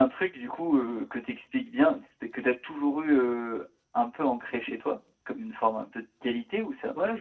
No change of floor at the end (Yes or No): No